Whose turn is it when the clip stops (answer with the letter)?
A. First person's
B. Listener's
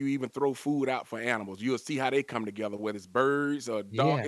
A